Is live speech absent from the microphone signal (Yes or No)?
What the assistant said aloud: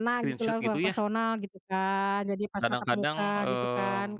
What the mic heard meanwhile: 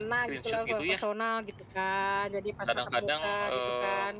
Yes